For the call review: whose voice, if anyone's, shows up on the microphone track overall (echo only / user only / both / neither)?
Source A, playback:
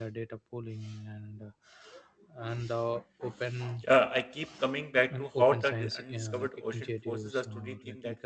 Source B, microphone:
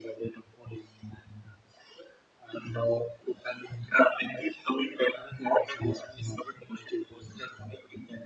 echo only